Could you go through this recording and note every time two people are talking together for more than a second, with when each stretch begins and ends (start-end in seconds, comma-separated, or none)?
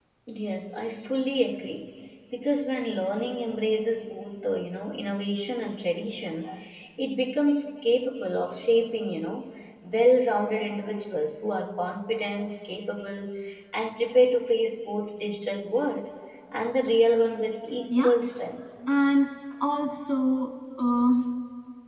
none